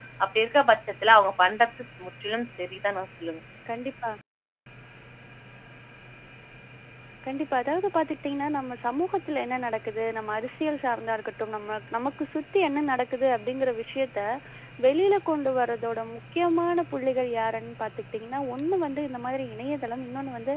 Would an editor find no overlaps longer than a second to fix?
Yes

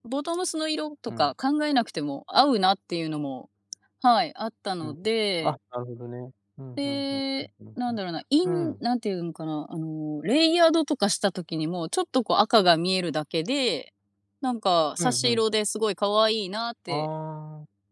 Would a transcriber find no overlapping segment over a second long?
Yes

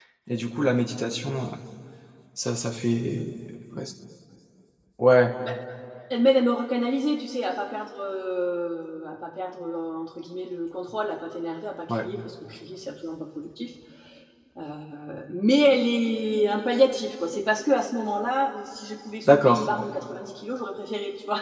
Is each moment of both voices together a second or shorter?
Yes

